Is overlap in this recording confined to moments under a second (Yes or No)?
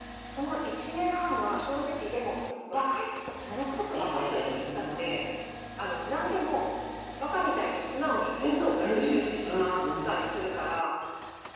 No